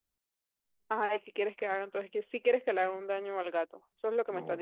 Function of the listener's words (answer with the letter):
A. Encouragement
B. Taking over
B